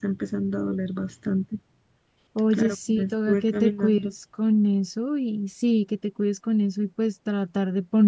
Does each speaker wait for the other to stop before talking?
No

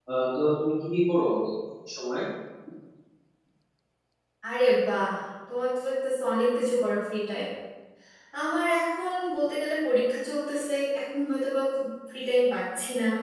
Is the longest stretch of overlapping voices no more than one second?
Yes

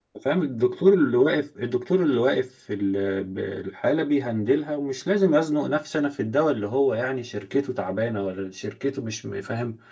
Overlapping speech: No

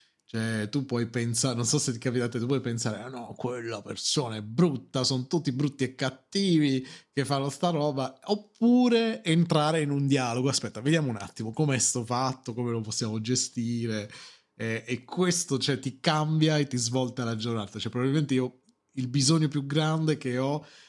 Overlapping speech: No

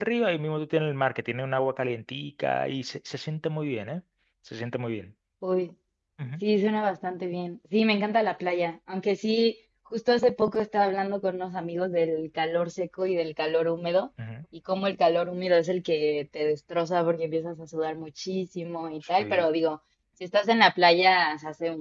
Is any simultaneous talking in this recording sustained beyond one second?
No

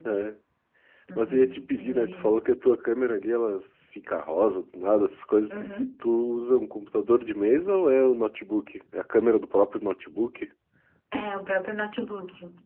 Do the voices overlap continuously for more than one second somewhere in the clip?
Yes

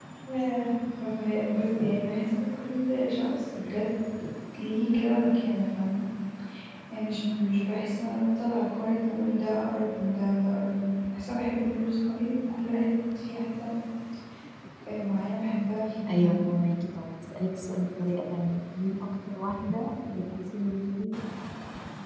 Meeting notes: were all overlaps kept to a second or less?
Yes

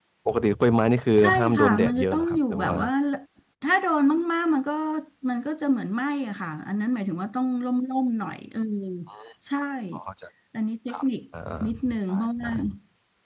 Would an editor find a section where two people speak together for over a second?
Yes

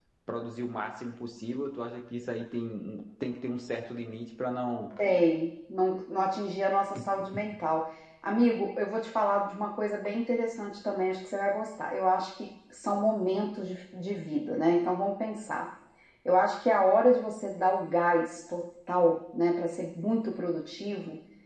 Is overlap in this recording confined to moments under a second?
Yes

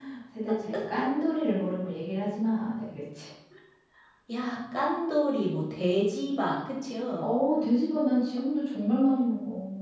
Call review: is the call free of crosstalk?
Yes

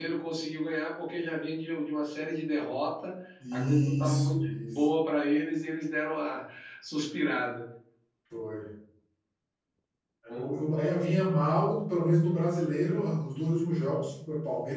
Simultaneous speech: Yes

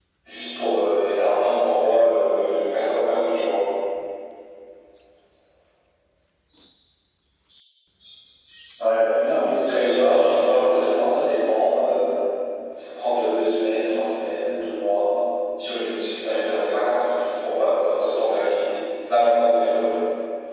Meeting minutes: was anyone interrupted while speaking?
Yes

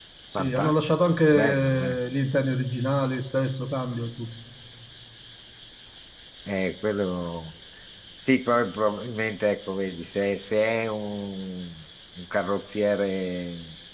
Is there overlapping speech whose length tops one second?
Yes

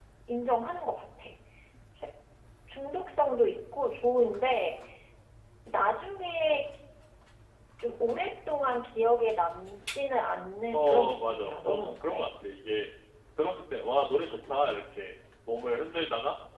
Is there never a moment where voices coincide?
No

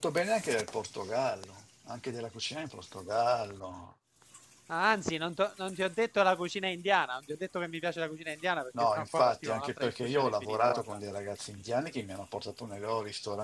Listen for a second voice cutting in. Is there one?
Yes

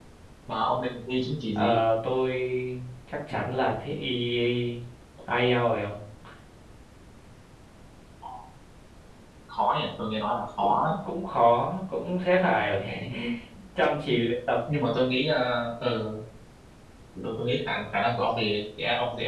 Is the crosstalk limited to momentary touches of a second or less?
Yes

